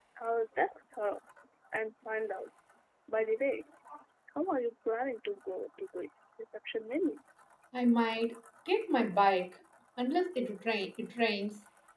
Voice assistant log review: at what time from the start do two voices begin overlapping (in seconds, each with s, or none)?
none